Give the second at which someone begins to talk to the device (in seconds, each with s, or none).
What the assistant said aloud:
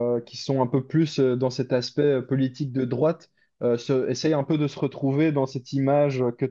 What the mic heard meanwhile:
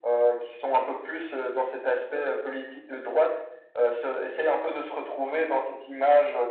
none